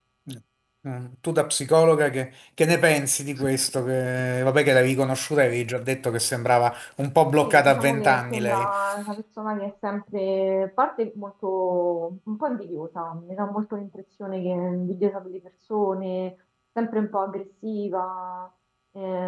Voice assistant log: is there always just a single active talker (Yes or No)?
No